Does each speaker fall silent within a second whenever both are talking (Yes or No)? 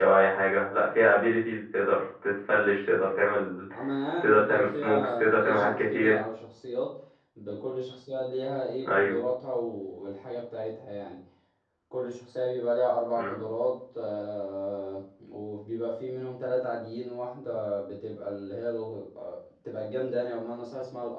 No